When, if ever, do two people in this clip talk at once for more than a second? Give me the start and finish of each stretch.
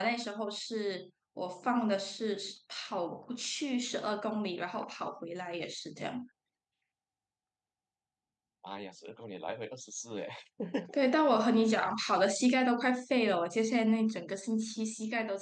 none

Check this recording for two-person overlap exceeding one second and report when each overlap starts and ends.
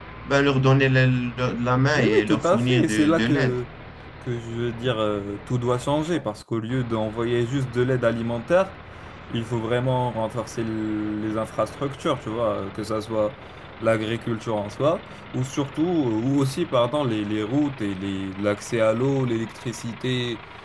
1.9-3.5

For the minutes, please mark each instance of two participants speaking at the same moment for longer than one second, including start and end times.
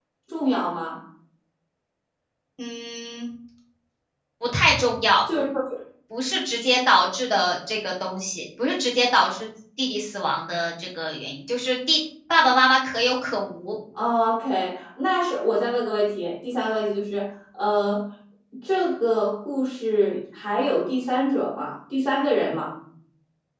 none

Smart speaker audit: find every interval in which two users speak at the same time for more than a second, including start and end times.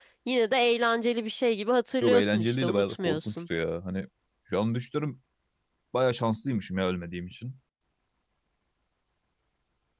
2.0-3.4

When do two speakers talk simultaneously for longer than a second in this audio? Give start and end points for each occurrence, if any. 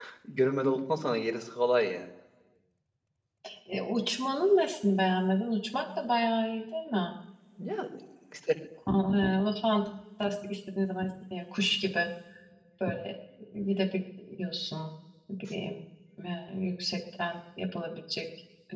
none

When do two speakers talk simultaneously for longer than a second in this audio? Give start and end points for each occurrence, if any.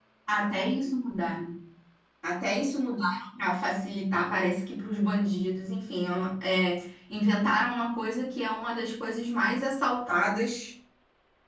none

